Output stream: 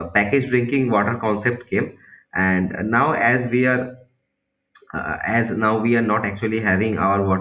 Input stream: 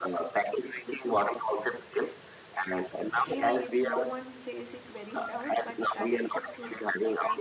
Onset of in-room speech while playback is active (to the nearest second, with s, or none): 3 s